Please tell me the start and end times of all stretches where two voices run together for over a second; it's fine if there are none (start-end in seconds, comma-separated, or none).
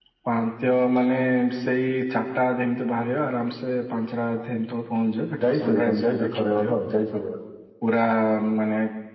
5.5-6.8